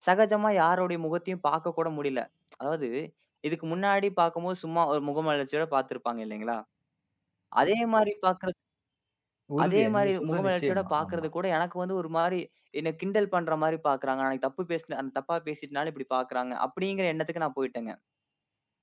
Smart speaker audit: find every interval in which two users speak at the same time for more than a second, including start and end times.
9.6-11.3

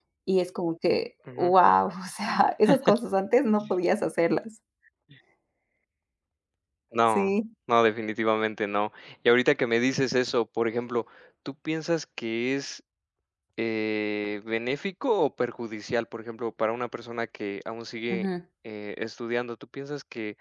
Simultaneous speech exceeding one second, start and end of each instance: none

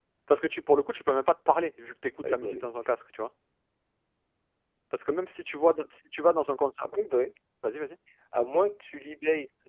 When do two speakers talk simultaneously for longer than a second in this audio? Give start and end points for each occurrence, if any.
none

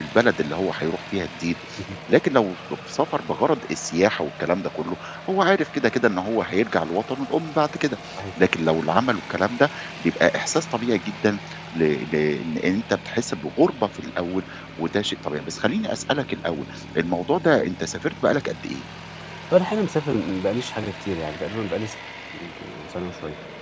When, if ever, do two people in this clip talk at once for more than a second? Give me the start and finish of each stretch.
none

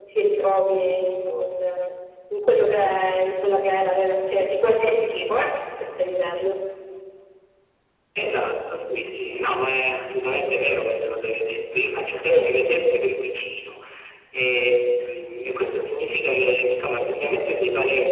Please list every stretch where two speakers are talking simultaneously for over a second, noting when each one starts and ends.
none

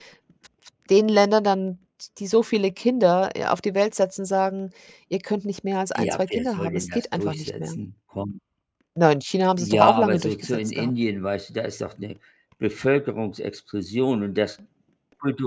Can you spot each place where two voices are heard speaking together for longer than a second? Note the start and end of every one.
6.0-7.8, 9.6-10.9

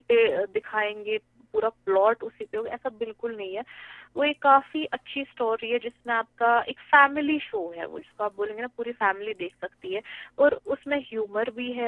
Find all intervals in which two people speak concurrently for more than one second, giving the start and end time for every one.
none

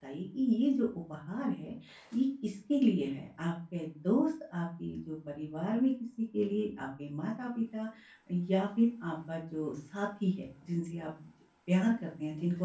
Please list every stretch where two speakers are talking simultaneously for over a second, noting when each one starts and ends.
none

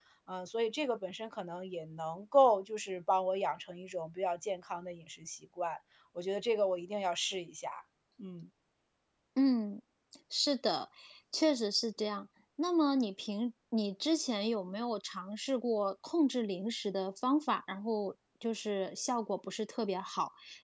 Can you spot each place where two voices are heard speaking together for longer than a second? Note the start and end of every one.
none

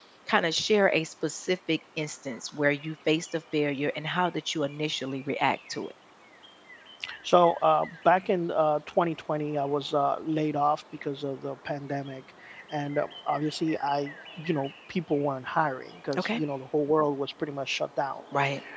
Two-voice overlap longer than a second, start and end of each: none

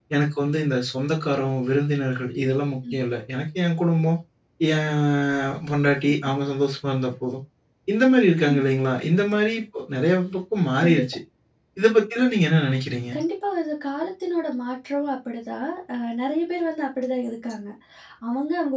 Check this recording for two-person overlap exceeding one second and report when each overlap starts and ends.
none

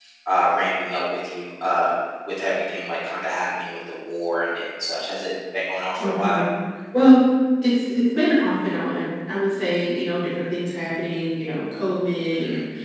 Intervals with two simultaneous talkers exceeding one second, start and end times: none

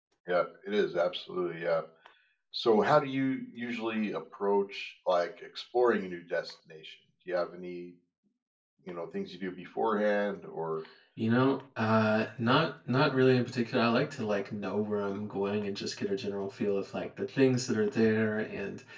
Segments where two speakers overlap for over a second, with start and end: none

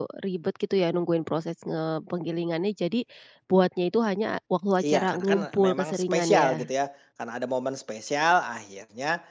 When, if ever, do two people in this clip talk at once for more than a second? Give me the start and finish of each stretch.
4.9-6.7

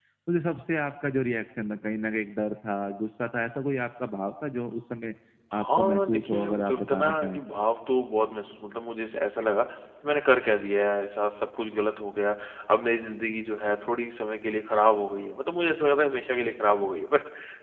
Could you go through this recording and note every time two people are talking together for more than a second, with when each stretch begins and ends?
5.6-7.4

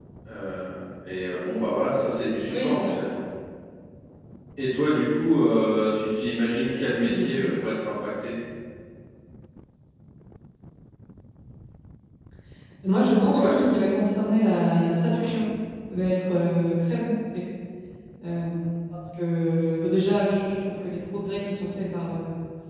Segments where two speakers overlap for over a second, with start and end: none

